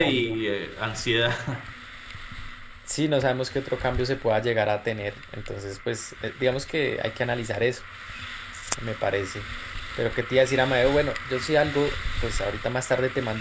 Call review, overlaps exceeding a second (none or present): none